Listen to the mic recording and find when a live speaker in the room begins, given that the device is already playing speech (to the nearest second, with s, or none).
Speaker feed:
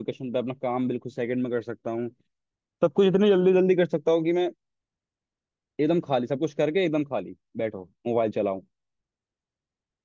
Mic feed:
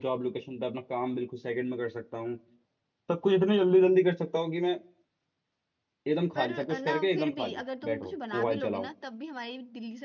6 s